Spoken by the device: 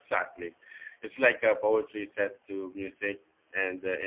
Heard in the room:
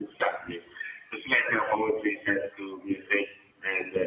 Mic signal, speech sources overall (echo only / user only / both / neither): echo only